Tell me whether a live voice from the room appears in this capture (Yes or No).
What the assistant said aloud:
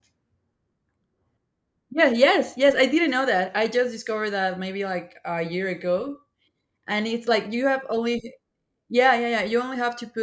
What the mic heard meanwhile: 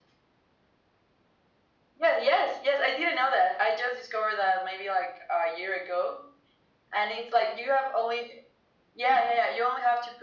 No